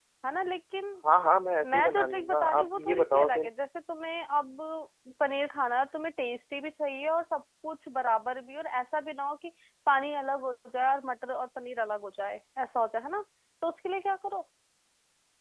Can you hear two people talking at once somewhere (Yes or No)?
Yes